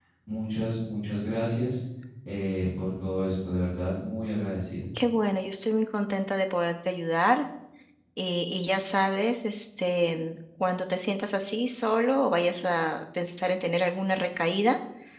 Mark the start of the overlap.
none

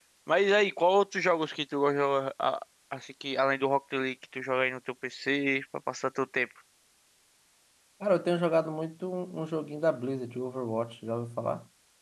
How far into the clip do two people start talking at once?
none

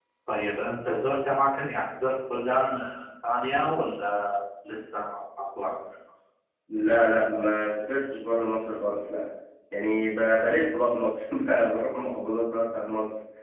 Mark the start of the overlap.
none

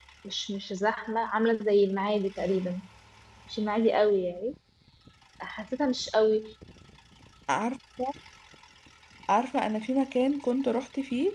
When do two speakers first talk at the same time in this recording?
none

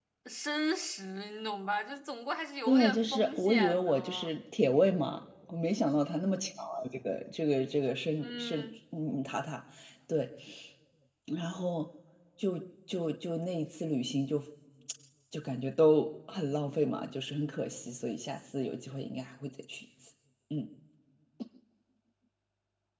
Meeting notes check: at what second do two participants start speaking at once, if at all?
2.7 s

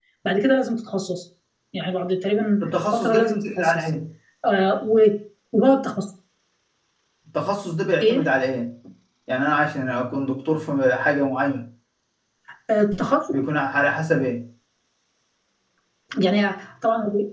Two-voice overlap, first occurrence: 2.6 s

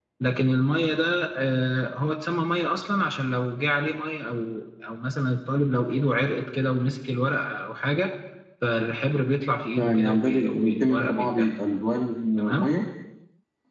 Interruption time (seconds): 9.7 s

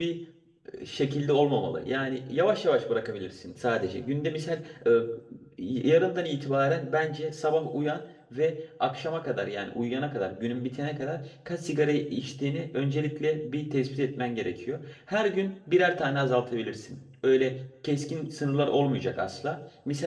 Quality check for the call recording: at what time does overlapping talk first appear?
none

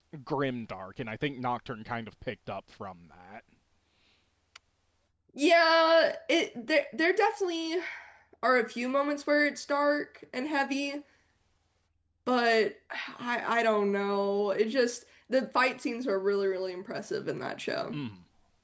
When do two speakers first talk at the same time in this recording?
none

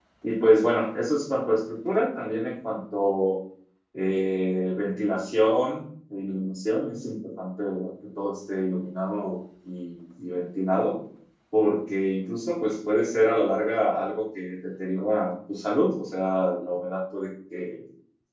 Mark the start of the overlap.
none

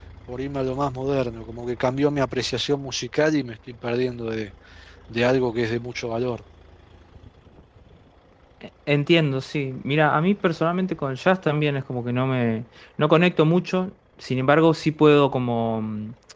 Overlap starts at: none

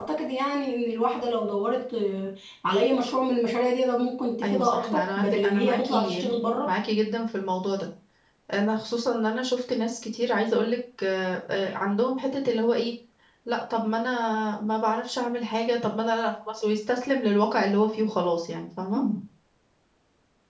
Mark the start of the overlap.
4.4 s

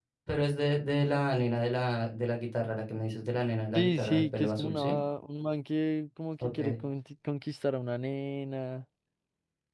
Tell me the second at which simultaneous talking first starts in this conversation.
3.7 s

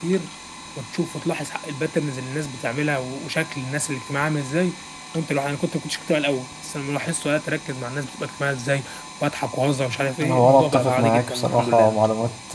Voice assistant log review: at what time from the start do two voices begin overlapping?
10.2 s

